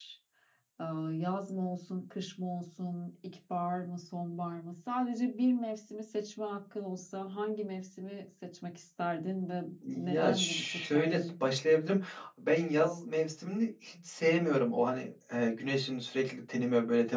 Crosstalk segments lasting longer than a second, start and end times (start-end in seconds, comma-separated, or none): 9.9-11.3